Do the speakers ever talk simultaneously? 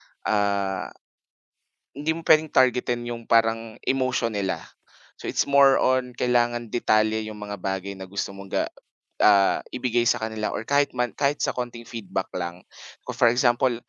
No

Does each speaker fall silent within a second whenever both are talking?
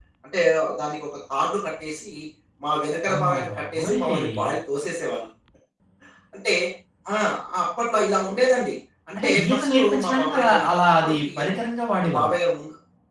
No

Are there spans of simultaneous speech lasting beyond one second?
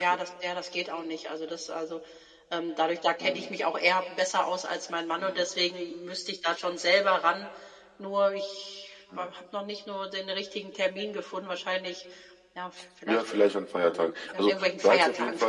Yes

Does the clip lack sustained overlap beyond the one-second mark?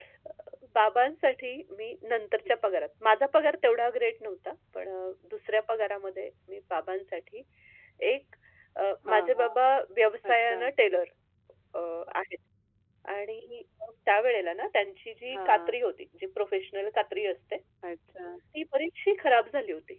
Yes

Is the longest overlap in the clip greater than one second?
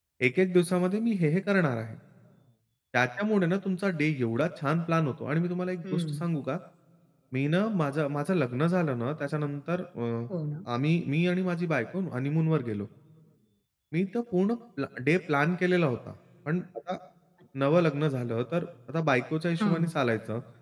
No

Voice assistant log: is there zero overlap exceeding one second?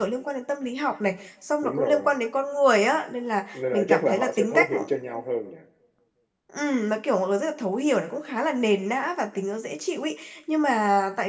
No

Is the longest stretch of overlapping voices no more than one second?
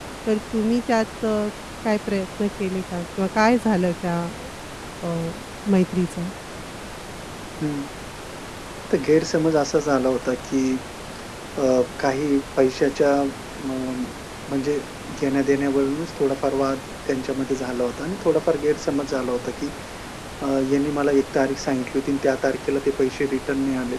Yes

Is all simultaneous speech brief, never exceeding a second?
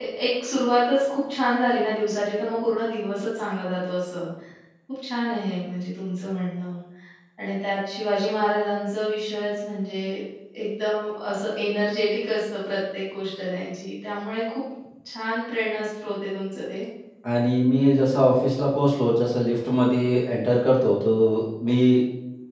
Yes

